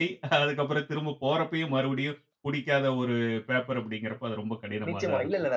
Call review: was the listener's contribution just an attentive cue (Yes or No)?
No